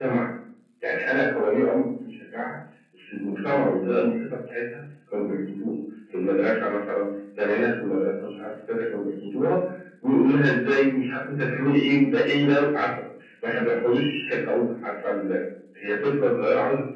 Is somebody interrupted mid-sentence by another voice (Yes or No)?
No